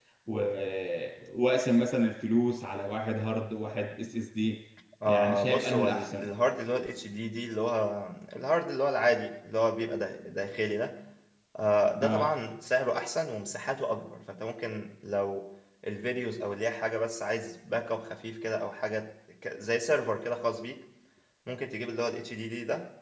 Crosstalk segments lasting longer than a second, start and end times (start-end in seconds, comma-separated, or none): 5.0-6.2